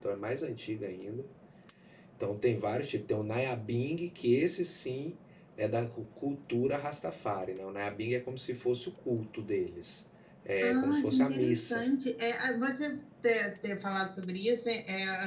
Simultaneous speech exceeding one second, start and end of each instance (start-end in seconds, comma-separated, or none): 10.6-11.8